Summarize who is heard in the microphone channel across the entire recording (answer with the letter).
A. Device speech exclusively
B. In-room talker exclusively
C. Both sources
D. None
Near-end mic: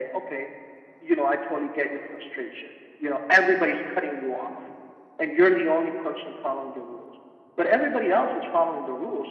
A